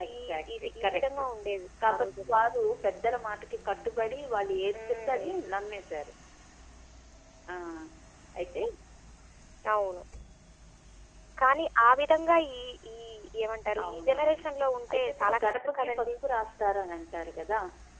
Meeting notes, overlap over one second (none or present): present